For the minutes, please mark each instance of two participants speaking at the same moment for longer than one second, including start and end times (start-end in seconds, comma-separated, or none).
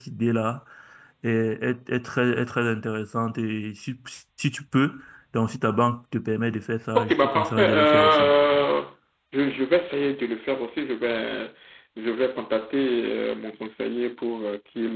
7.0-8.3